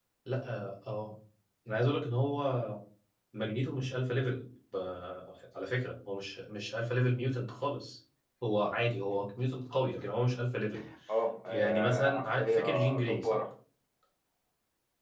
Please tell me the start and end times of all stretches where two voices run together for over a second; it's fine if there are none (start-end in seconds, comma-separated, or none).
11.4-13.4